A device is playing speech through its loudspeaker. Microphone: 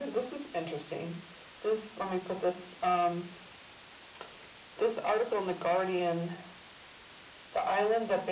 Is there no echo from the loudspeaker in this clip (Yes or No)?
No